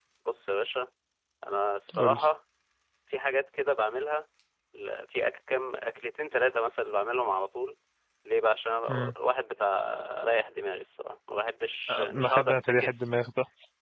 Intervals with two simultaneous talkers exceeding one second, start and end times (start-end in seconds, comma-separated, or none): 11.9-13.1